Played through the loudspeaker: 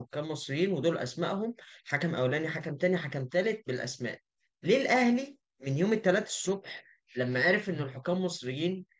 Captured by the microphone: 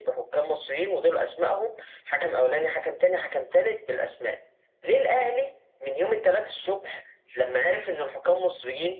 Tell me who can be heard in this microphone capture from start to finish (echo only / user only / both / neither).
echo only